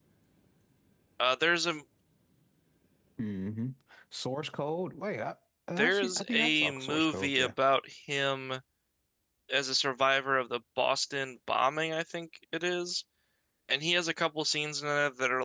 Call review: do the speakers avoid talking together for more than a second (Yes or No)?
No